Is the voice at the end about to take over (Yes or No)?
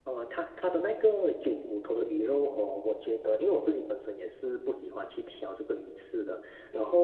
No